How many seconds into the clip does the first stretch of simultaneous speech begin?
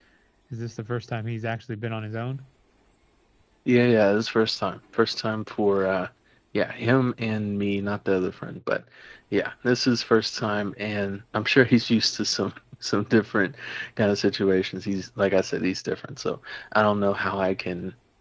none

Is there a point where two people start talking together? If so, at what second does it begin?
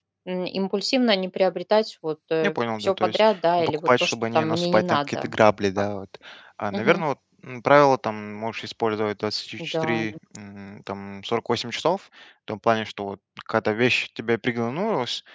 2.8 s

